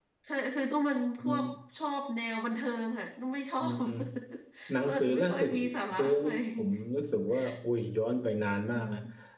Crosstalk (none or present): present